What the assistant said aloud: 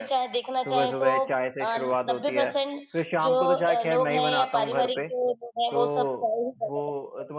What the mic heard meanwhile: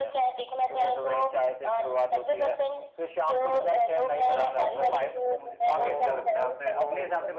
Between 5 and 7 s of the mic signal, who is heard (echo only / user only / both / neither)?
both